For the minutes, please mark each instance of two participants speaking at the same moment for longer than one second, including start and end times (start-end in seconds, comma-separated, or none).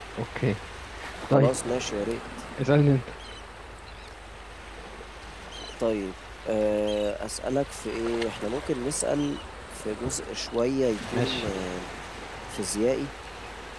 none